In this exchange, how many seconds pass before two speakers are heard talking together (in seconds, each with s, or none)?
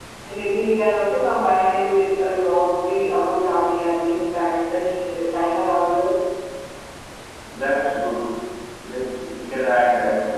none